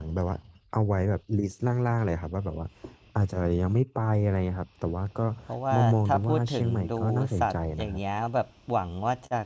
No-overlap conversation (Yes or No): No